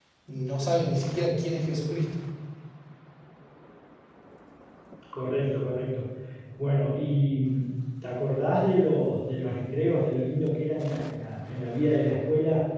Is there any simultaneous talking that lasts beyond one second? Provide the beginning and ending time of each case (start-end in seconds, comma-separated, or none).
none